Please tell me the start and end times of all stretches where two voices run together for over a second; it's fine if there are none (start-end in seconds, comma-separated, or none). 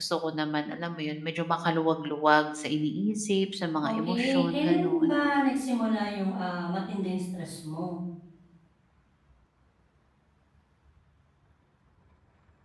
3.9-5.1